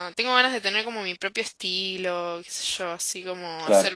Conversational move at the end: listening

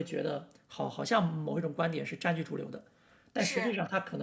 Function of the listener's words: listening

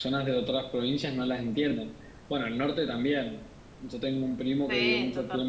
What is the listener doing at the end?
listening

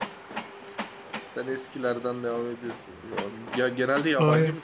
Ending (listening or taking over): taking over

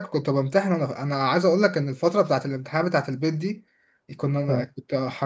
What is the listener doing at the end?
listening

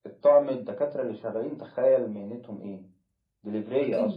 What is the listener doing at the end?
taking over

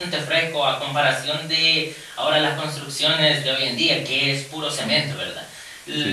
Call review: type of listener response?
listening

